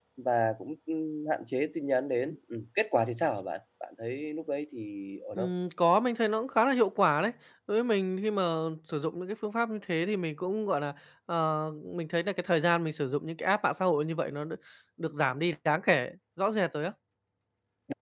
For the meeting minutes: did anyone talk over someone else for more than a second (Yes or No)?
No